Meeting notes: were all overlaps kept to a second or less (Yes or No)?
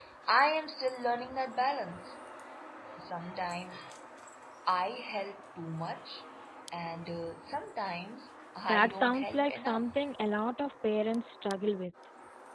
No